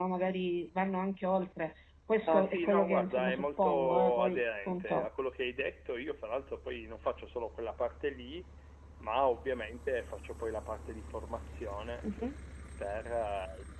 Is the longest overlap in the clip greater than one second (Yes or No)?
Yes